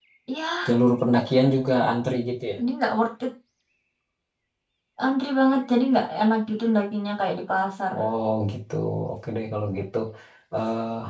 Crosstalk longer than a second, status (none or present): none